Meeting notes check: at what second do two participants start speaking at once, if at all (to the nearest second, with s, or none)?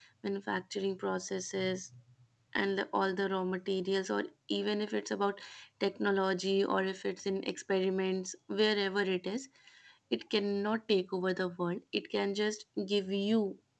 none